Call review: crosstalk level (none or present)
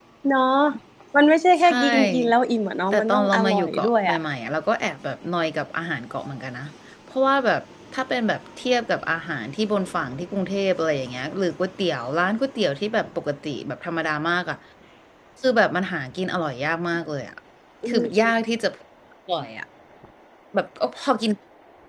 present